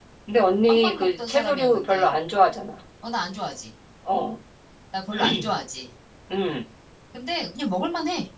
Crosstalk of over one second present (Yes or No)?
Yes